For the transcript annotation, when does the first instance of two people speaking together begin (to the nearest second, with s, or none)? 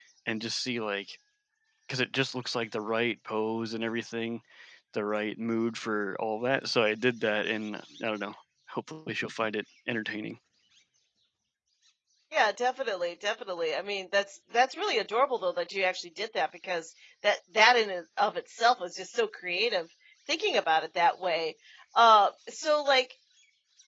none